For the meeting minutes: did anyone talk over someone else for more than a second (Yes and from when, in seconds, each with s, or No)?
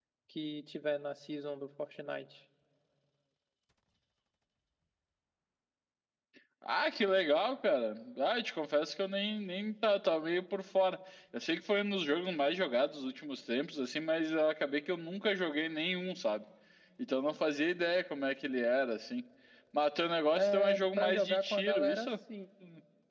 Yes, from 20.3 s